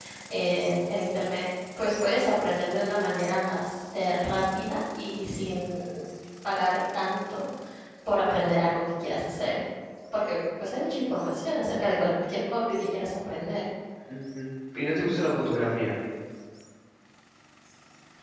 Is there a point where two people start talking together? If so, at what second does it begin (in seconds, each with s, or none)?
none